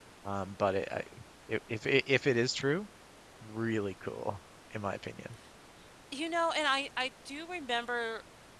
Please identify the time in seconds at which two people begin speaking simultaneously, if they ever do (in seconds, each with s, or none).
none